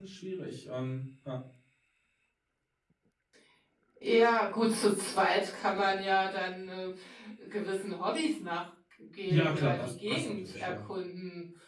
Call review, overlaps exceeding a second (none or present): present